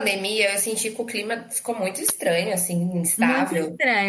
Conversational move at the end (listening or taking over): taking over